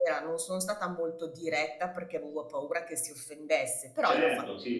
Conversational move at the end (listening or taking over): taking over